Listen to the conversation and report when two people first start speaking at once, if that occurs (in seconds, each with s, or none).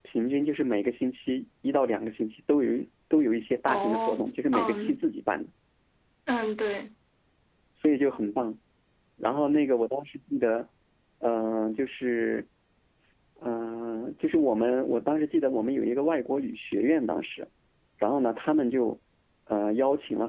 3.7 s